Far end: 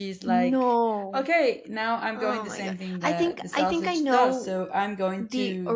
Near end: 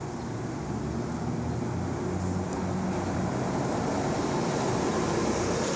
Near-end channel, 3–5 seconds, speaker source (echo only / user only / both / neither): neither